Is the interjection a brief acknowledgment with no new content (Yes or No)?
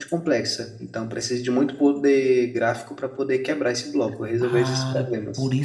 No